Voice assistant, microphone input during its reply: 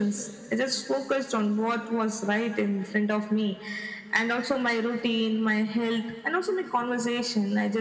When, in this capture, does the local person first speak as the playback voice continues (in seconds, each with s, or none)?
none